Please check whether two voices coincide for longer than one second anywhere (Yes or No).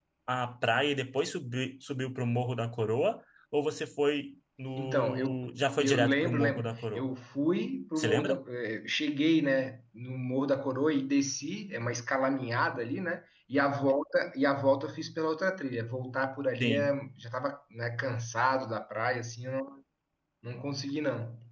Yes